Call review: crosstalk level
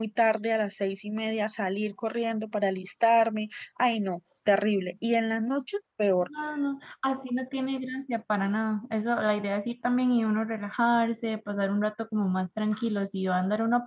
none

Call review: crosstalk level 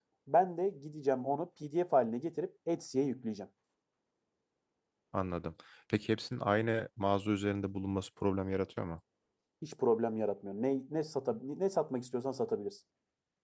none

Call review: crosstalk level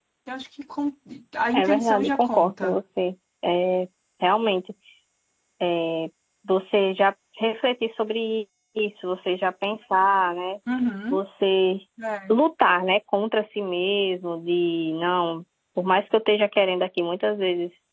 present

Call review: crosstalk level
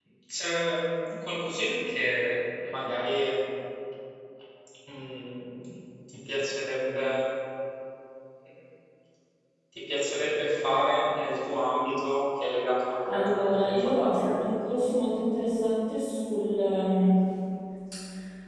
present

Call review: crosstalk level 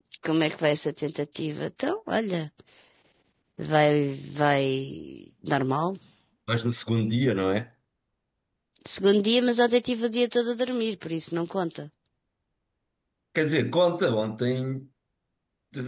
none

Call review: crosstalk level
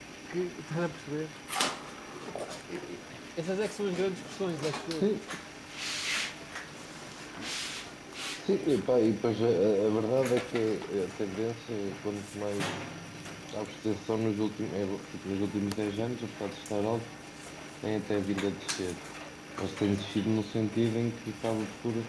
none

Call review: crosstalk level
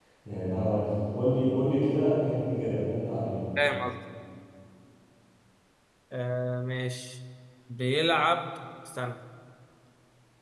none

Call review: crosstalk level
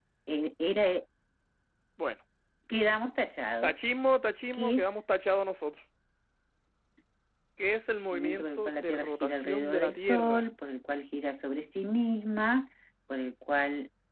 present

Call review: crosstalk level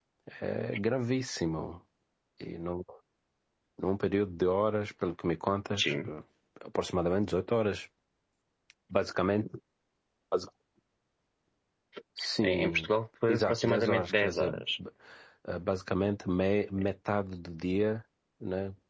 present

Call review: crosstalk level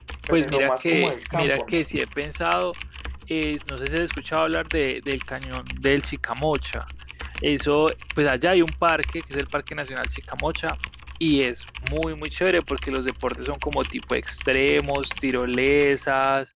present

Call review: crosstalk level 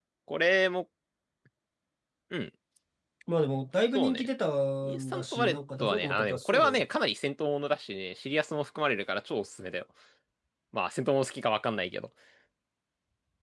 present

